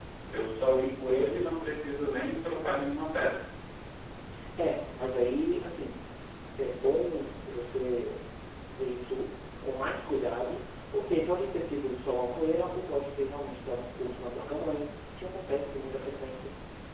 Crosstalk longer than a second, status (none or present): none